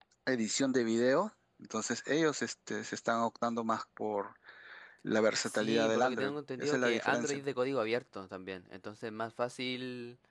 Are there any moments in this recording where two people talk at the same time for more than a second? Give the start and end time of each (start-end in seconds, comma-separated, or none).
5.5-7.4